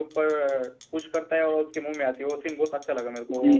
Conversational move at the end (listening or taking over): taking over